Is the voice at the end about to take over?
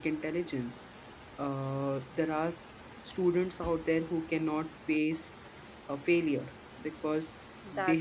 No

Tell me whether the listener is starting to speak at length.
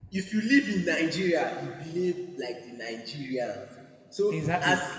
No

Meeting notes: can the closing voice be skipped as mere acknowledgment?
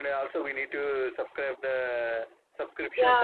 No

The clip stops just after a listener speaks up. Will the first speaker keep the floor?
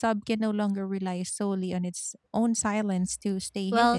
No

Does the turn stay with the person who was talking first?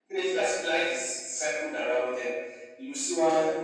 Yes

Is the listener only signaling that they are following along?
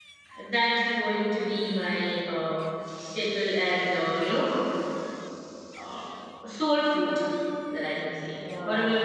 No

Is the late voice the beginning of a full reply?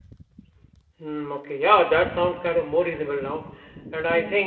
No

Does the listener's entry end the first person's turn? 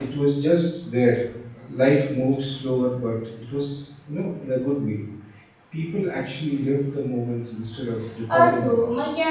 Yes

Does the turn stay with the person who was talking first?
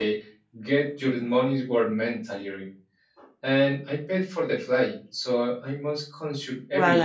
No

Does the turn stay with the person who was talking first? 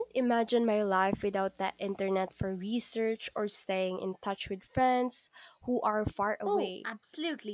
No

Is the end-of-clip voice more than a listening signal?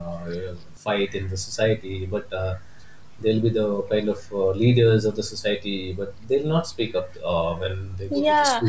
Yes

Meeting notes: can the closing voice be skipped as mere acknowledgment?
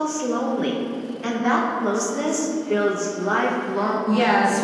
No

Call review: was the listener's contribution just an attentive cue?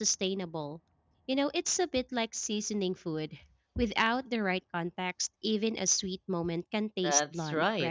No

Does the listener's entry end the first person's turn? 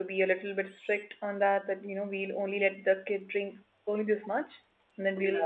No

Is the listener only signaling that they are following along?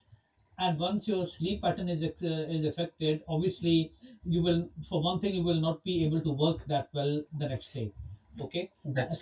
Yes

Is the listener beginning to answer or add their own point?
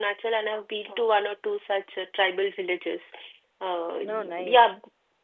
No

